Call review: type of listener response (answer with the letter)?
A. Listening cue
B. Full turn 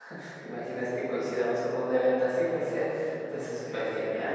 B